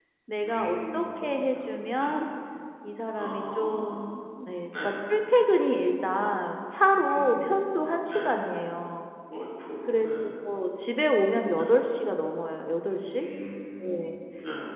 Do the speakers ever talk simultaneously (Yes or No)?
Yes